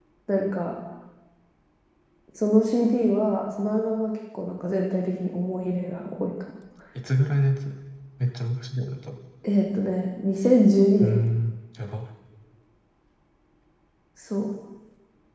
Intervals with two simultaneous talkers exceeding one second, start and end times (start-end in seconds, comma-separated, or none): none